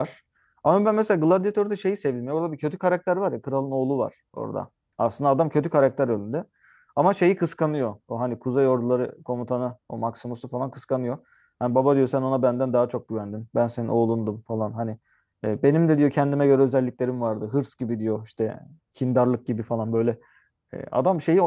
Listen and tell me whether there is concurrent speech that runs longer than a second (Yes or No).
No